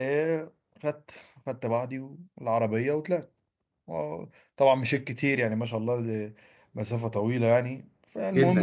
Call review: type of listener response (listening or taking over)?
taking over